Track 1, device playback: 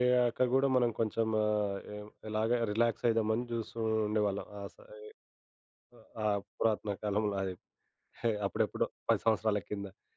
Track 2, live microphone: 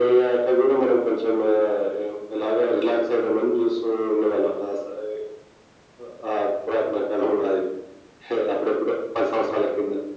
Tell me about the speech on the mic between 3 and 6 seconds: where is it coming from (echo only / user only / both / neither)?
echo only